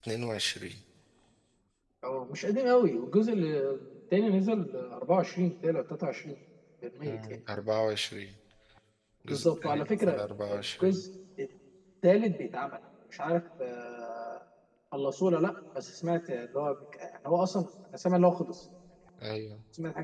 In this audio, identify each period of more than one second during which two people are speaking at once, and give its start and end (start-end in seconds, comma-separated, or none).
9.3-11.0